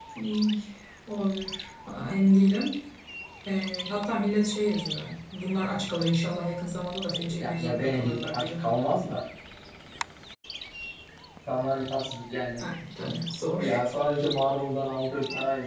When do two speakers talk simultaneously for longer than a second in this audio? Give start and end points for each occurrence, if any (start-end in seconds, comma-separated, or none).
7.1-8.5